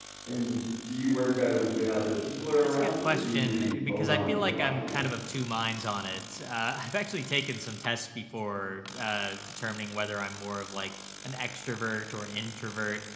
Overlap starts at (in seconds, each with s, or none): 2.6 s